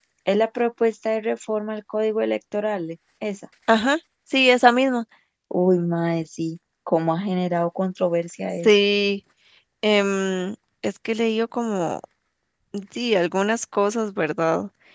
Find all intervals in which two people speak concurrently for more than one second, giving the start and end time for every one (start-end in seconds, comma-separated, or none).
none